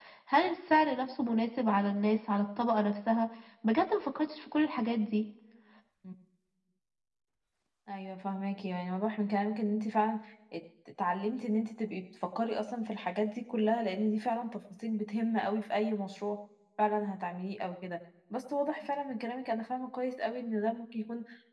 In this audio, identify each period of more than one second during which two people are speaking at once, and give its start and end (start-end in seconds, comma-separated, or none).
none